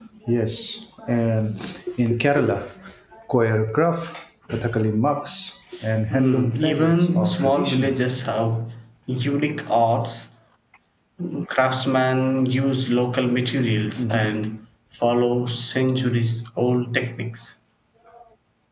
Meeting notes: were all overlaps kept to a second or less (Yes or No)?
No